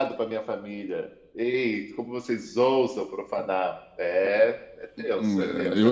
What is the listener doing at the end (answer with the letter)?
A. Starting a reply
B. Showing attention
A